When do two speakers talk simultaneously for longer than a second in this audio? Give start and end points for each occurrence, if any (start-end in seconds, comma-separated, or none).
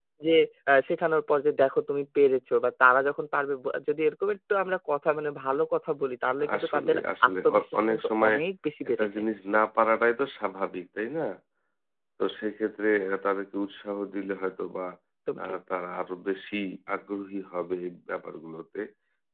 6.6-8.4